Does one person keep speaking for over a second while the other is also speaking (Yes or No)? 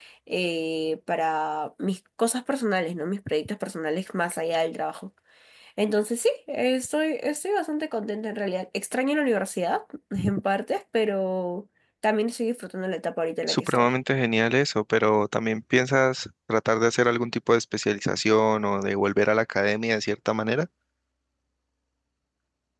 No